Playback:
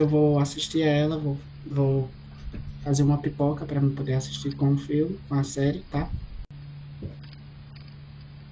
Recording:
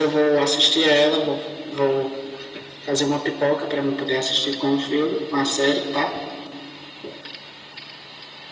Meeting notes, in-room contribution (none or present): none